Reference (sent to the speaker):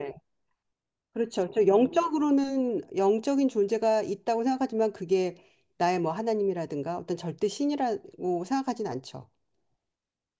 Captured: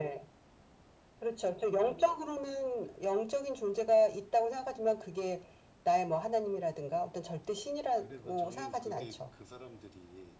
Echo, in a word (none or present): present